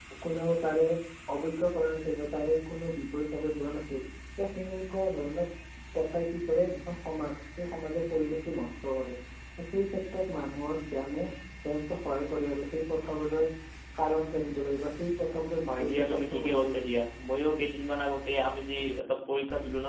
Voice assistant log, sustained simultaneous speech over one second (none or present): present